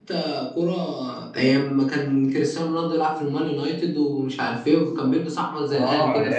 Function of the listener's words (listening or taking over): taking over